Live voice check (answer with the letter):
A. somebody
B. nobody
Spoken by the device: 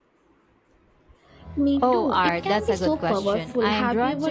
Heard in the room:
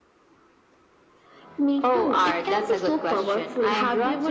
B